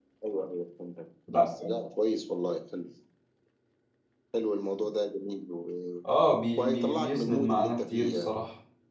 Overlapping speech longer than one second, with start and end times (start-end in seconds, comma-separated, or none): 6.6-8.3